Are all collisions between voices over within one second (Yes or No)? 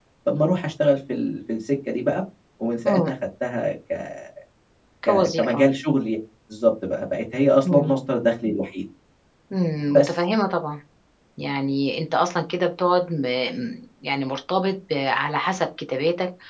Yes